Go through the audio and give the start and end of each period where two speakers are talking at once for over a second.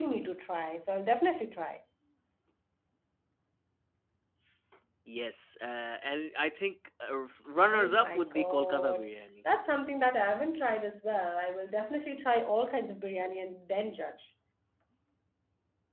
7.7-9.1

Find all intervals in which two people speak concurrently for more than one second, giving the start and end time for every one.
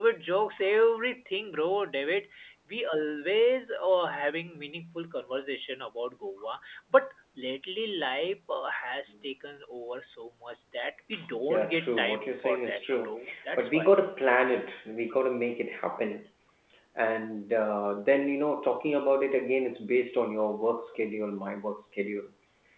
11.5-13.1

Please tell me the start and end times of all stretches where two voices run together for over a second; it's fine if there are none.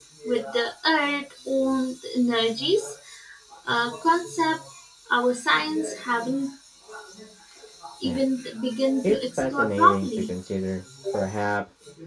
9.0-10.3

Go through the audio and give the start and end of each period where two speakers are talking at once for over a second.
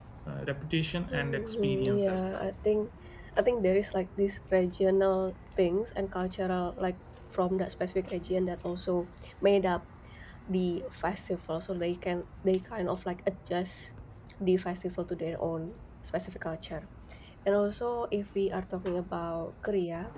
1.1-2.5

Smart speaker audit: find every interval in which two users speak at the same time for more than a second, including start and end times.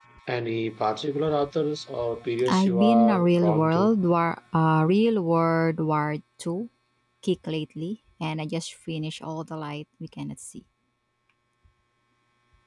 2.5-3.9

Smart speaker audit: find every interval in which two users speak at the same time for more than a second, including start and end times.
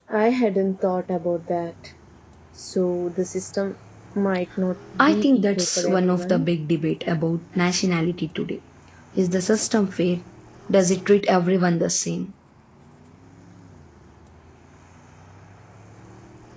5.0-6.5

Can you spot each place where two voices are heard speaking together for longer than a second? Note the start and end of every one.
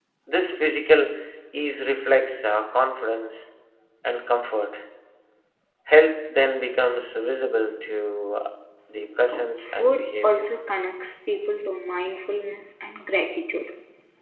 9.3-10.5

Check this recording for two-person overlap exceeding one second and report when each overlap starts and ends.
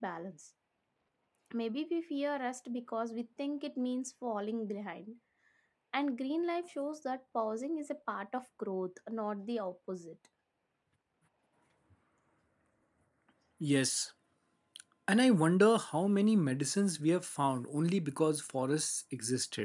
none

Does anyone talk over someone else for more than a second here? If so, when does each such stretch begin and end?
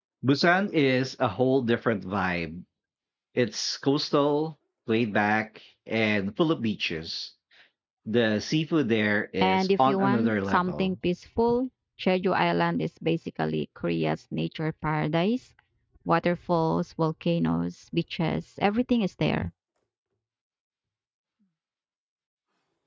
9.4-10.9

